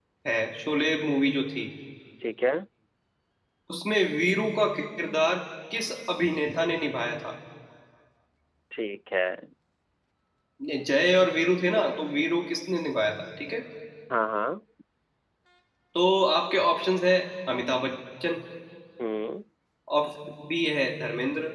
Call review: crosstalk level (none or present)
none